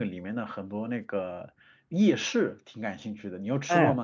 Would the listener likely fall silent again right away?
No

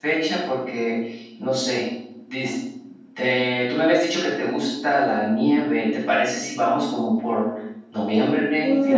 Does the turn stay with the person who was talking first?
No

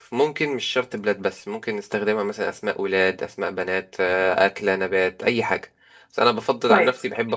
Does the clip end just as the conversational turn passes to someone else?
No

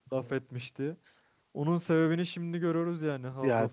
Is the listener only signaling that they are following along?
No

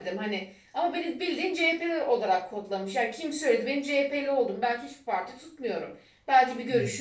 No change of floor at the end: Yes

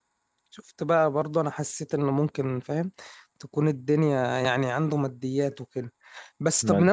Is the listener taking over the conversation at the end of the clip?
No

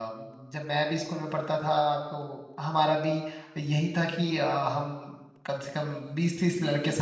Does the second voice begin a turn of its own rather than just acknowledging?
No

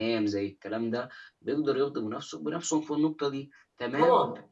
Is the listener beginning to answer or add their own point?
No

